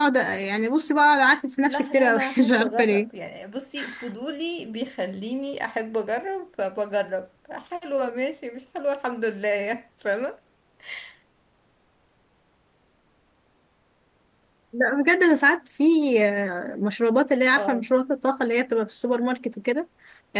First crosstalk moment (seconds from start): 1.6 s

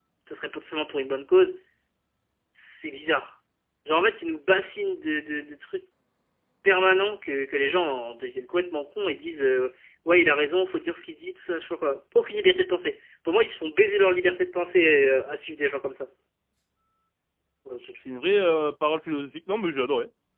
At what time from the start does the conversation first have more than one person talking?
none

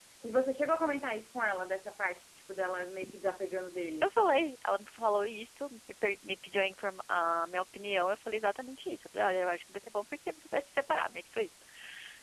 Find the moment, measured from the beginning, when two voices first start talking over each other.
none

